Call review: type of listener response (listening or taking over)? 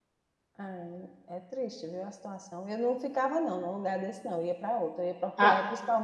listening